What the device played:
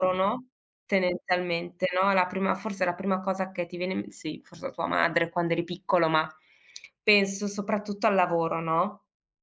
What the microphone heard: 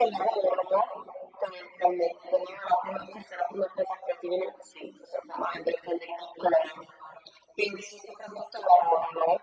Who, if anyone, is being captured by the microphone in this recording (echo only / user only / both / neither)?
echo only